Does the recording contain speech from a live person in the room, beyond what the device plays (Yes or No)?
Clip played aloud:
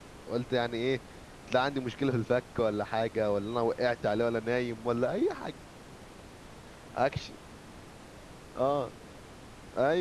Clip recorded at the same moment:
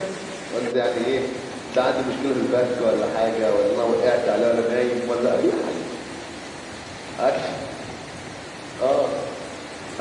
No